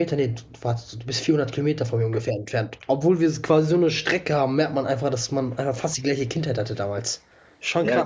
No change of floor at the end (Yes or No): No